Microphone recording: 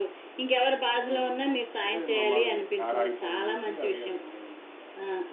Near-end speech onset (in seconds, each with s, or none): 1.1 s